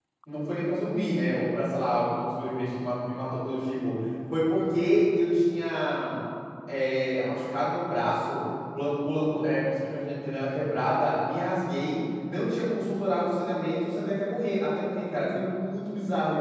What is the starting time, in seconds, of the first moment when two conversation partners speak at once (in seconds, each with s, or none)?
none